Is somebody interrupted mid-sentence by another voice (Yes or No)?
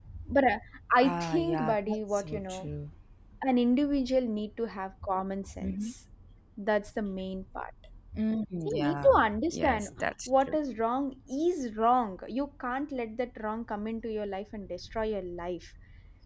Yes